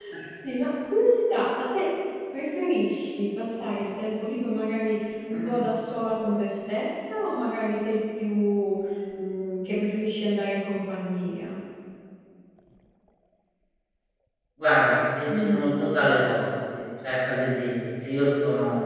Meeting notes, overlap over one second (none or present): none